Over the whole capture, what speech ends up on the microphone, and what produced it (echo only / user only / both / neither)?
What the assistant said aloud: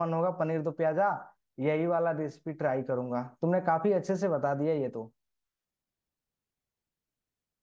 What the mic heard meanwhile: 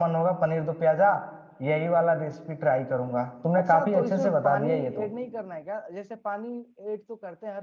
both